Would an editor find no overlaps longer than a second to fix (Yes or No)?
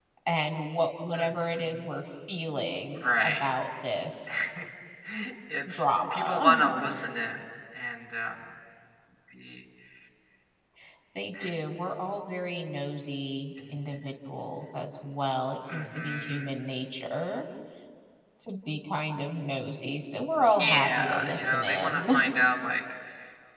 No